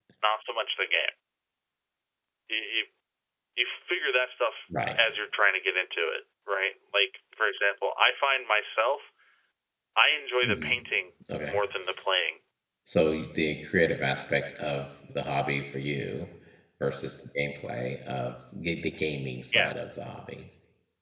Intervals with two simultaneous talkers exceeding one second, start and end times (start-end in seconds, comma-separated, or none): none